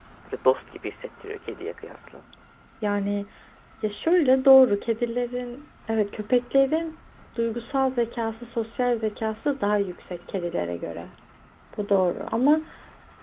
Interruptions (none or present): none